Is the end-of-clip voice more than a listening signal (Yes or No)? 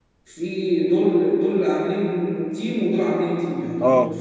No